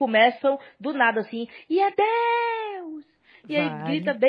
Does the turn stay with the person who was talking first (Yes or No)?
Yes